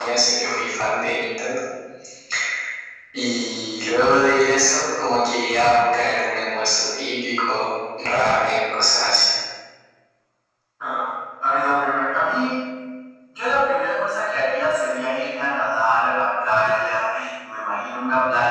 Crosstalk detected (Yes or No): No